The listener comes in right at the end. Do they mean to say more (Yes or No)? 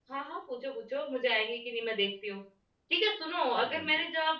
No